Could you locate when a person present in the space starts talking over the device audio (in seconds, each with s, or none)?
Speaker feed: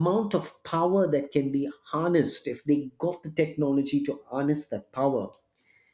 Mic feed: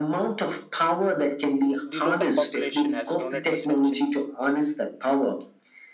1.8 s